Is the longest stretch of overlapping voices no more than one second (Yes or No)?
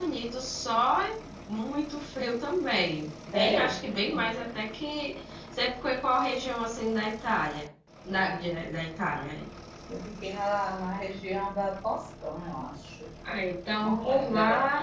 No